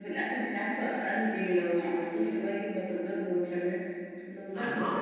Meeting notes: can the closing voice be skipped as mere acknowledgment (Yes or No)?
Yes